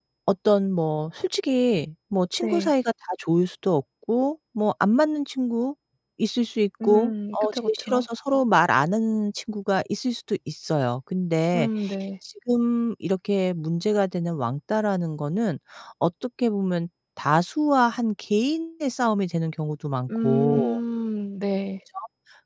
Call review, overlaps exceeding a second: present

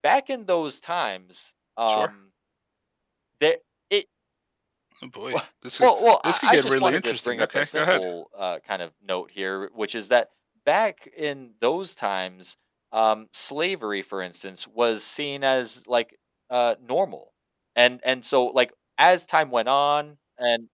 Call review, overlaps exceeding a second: present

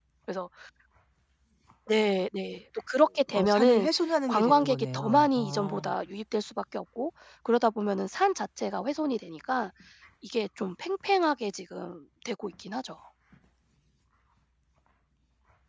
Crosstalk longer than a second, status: present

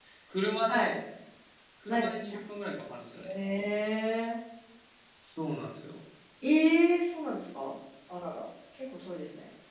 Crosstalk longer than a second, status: none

